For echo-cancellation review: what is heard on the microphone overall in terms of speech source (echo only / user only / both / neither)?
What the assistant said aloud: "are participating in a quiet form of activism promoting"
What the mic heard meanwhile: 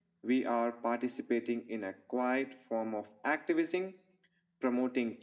echo only